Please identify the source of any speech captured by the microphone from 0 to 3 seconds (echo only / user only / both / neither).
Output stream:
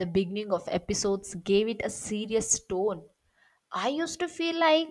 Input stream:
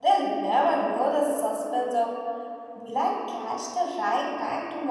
user only